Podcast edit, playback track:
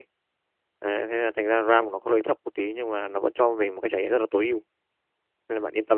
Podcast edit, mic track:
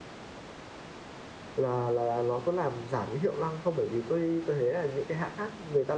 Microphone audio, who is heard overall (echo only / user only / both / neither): user only